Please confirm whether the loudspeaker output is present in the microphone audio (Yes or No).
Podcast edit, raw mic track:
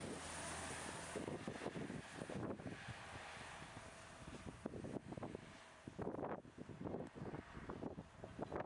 No